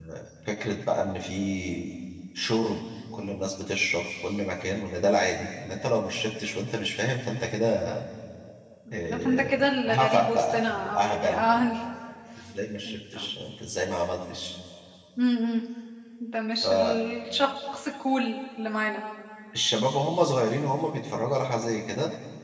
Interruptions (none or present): present